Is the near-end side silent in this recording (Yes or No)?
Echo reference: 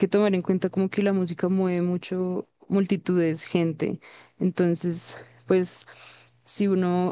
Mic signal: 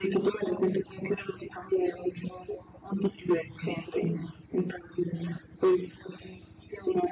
Yes